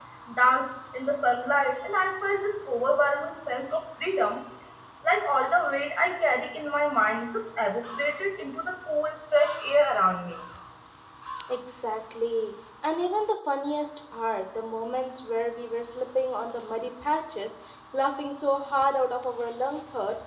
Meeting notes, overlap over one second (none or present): none